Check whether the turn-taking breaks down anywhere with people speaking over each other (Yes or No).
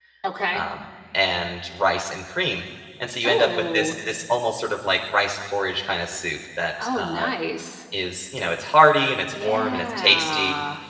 Yes